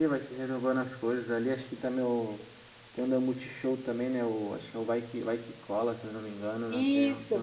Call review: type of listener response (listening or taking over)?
taking over